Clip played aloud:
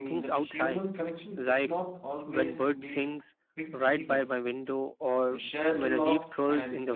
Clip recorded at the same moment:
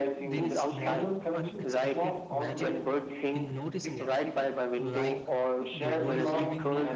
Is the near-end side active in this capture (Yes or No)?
Yes